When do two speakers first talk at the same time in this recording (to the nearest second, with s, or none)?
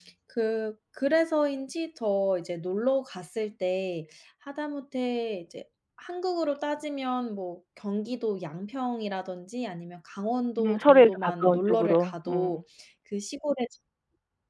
11 s